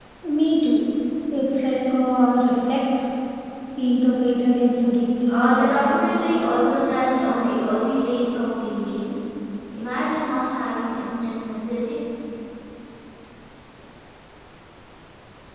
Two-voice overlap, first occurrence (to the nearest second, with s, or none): 5 s